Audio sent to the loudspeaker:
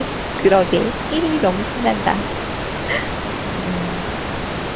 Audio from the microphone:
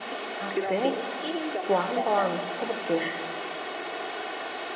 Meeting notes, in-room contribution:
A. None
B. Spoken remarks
B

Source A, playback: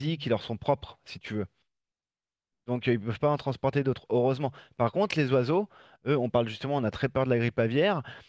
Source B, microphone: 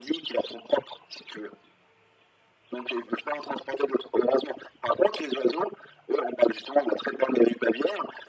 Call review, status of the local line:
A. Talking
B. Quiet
B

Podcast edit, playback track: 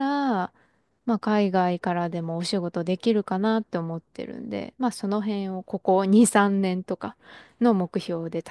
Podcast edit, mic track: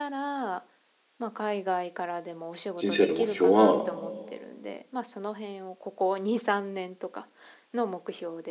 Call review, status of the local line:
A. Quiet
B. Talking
B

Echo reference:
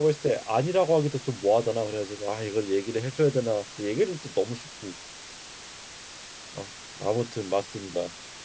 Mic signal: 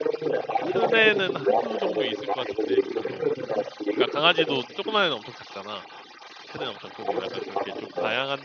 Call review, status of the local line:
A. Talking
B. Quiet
A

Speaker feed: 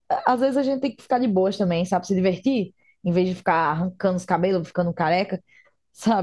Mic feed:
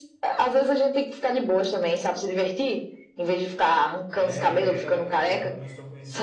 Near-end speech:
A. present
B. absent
A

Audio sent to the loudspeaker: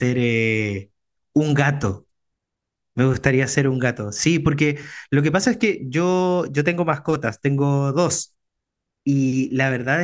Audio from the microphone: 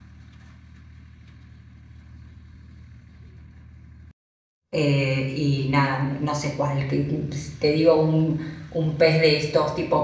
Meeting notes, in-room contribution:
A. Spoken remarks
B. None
A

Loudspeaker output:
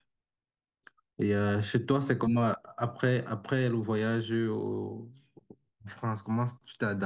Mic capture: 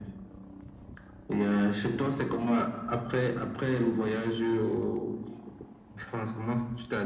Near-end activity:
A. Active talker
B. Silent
B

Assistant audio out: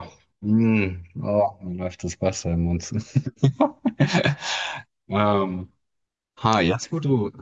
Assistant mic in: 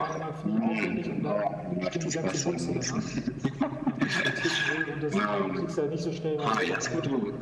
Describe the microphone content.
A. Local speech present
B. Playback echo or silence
A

